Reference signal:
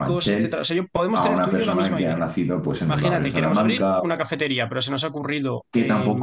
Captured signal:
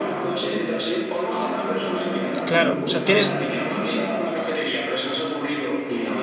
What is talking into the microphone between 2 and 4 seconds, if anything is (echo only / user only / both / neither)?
both